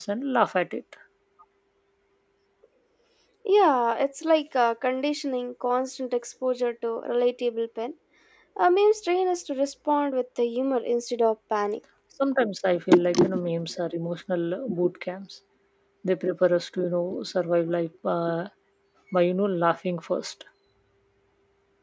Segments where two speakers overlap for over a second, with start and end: none

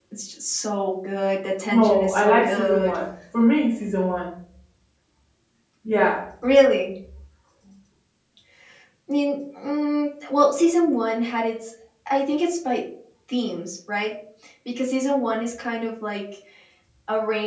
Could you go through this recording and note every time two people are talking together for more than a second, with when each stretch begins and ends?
1.7-3.0

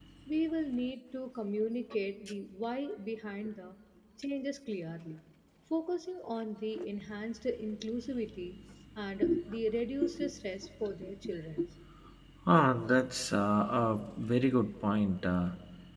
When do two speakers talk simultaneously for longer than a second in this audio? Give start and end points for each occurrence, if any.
none

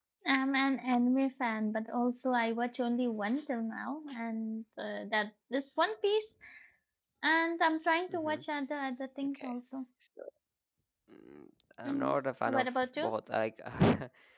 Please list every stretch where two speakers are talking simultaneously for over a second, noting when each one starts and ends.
11.8-13.1

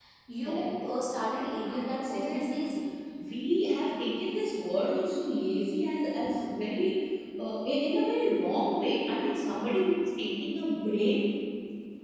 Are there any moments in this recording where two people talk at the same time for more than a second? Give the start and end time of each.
1.3-2.7

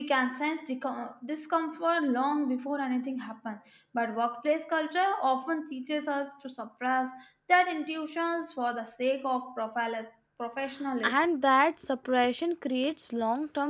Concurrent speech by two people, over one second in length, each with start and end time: none

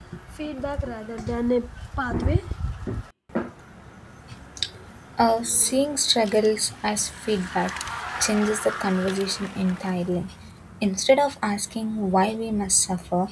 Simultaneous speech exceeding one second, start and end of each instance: none

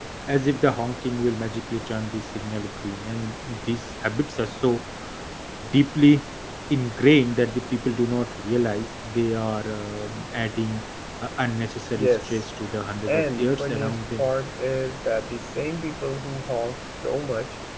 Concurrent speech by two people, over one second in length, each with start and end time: 13.1-14.3

